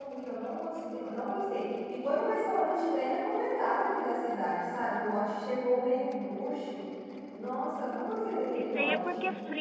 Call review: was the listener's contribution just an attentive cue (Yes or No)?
No